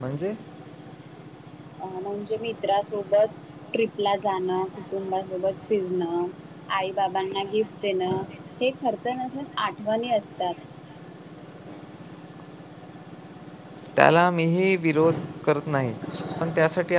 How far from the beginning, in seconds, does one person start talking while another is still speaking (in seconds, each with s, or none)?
none